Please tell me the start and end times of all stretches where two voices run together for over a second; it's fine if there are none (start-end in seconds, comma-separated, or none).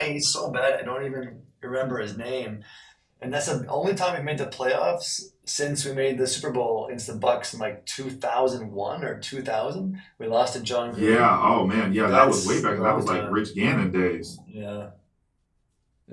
12.0-13.4